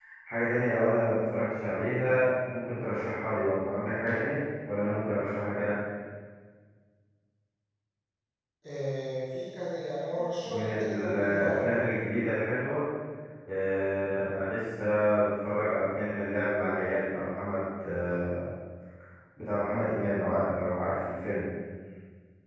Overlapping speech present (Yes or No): Yes